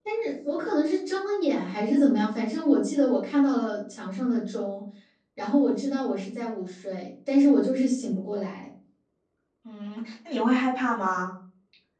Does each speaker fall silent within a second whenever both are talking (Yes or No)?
Yes